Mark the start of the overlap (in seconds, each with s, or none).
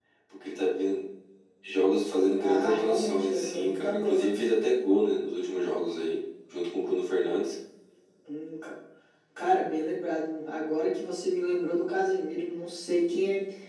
2.4 s